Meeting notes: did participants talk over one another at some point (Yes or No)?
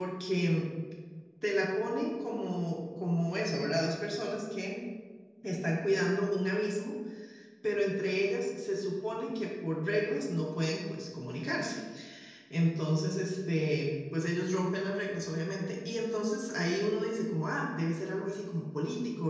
No